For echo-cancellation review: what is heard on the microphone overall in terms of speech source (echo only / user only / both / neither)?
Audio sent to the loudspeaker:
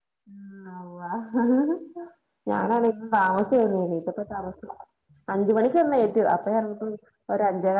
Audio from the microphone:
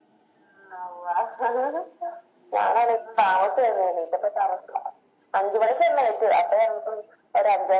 echo only